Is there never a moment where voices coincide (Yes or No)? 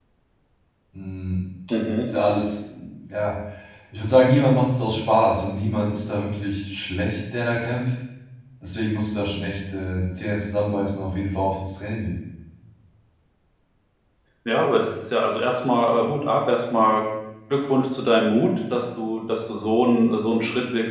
Yes